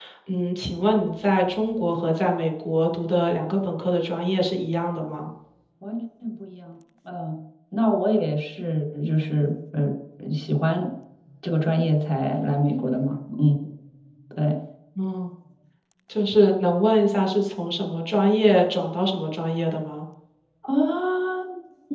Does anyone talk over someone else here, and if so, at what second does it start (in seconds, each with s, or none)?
none